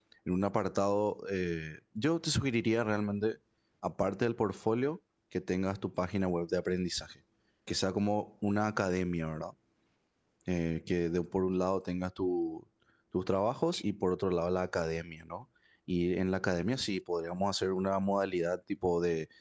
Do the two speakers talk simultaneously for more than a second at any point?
No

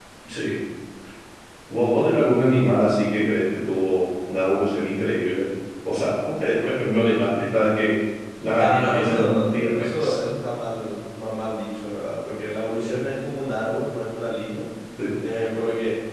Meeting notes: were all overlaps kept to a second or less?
No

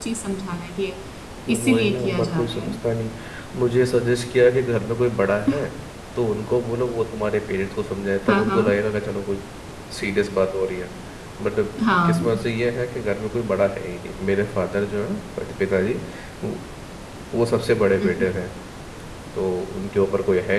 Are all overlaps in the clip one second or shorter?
No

